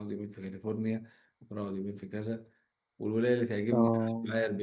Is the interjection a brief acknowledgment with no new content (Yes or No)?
Yes